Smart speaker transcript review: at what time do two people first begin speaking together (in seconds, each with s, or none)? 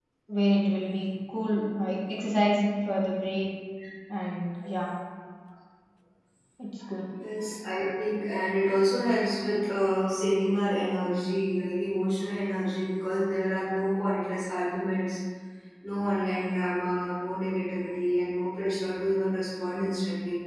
none